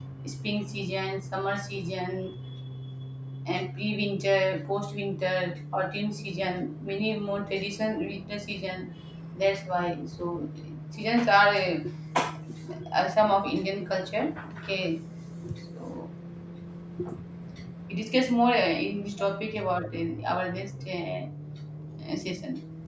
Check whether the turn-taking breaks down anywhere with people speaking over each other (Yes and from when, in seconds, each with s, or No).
No